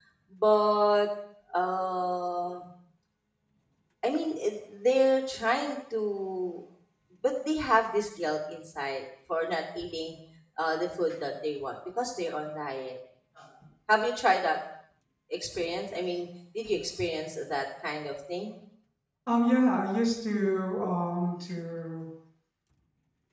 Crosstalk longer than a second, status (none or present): none